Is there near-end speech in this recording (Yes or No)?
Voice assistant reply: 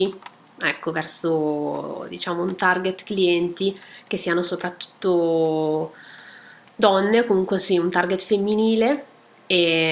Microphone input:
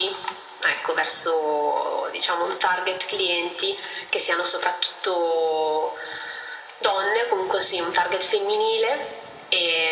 No